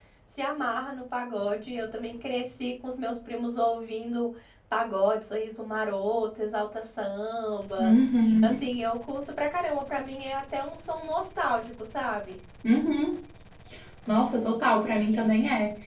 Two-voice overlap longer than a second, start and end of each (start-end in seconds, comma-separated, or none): none